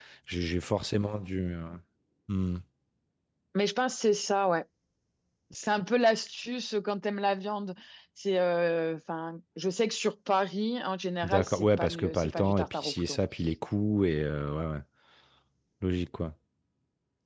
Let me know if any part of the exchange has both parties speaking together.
Yes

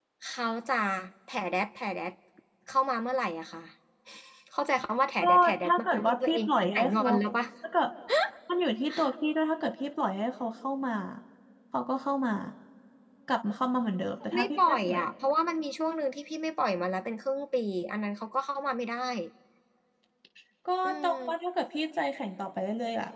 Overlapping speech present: Yes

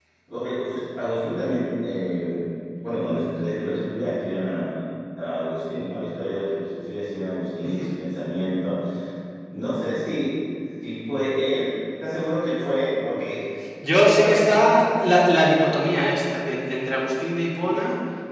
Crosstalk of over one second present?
Yes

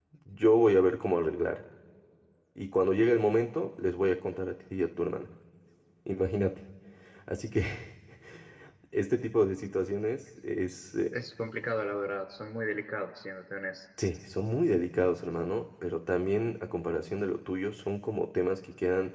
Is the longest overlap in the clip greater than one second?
No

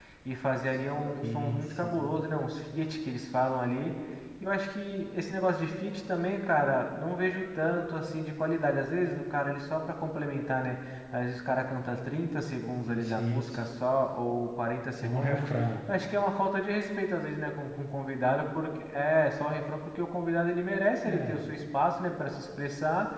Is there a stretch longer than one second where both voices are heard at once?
Yes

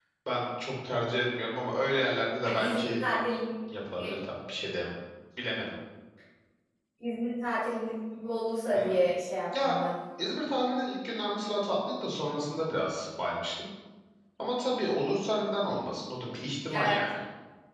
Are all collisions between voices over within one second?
Yes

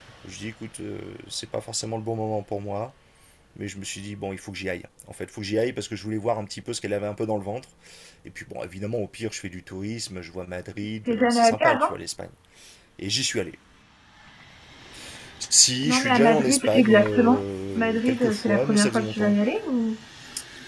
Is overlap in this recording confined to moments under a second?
No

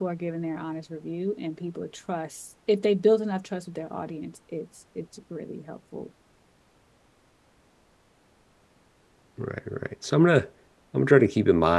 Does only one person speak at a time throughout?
Yes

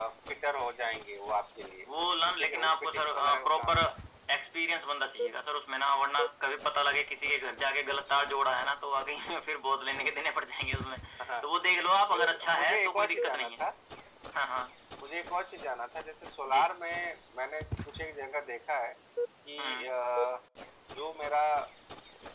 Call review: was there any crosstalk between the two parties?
Yes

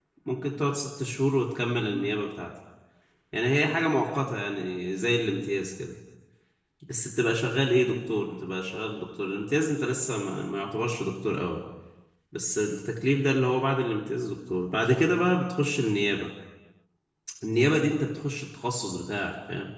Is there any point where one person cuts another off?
No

